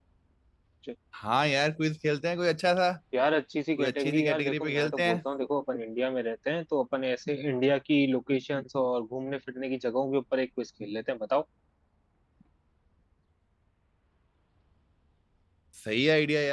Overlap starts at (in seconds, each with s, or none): 3.8 s